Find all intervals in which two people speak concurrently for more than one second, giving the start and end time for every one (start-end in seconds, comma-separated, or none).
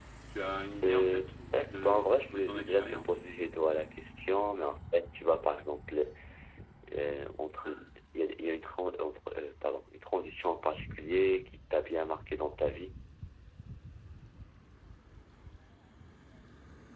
0.8-3.2